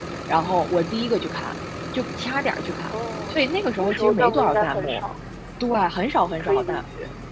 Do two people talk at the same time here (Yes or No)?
Yes